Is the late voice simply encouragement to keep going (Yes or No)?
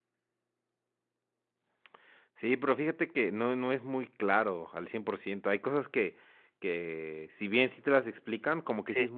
Yes